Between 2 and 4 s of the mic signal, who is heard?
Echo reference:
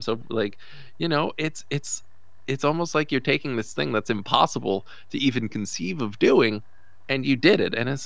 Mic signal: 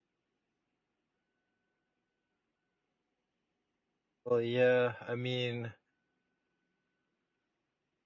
neither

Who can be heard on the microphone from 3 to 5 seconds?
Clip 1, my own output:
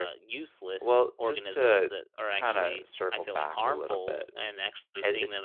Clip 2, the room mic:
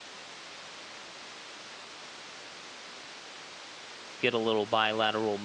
user only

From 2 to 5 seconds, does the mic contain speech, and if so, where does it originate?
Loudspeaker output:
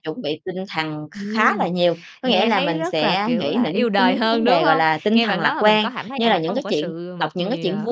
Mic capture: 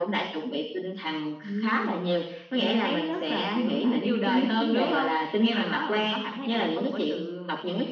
echo only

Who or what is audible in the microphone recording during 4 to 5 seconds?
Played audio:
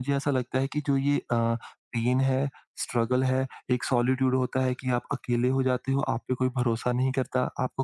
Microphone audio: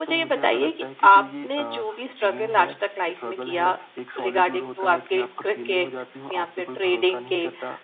both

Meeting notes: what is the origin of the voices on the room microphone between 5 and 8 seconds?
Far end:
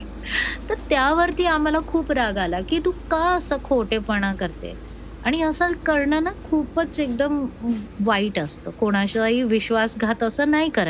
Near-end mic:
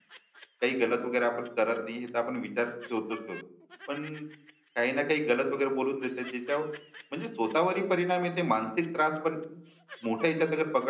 user only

